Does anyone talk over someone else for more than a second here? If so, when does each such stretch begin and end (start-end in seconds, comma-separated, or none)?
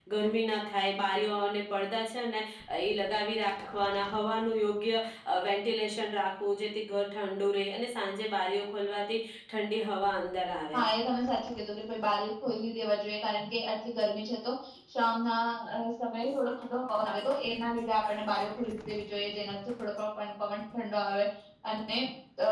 none